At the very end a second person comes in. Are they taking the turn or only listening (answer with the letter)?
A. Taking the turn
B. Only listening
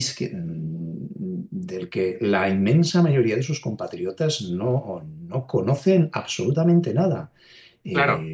A